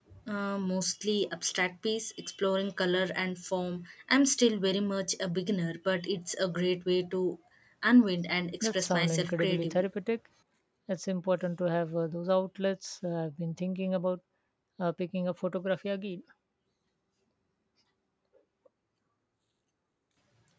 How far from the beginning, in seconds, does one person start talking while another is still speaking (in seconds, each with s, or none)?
8.6 s